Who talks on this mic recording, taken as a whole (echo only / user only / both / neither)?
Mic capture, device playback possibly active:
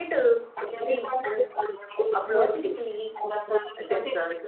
both